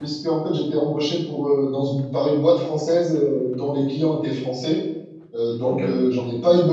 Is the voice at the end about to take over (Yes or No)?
No